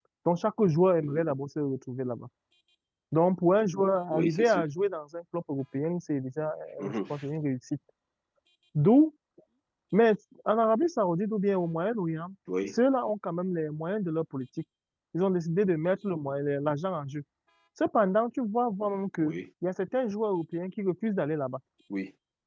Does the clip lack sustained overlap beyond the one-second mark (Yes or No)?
Yes